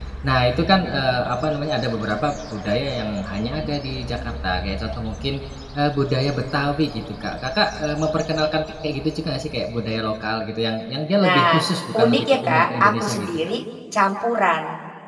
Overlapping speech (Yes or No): Yes